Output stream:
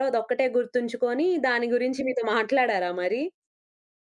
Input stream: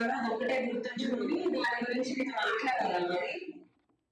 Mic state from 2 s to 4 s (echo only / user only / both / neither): echo only